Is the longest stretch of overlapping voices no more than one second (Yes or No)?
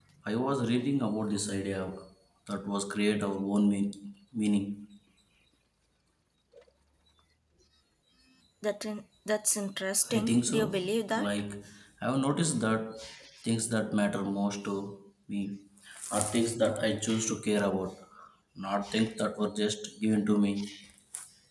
No